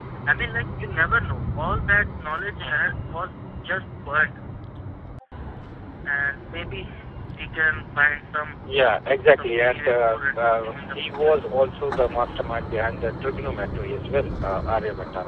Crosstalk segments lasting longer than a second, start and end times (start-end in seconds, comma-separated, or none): 9.4-11.6